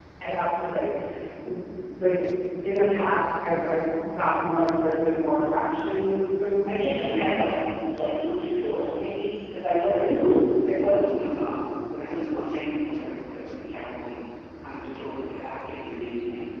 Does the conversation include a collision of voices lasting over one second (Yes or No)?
No